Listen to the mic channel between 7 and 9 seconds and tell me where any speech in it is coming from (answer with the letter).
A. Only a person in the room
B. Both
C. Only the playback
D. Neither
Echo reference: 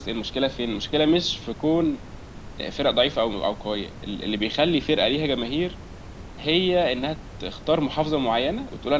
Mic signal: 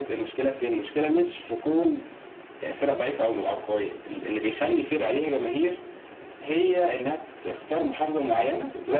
C